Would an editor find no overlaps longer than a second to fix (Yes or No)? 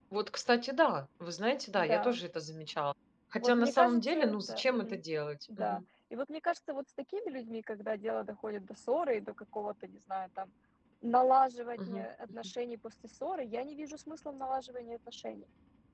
No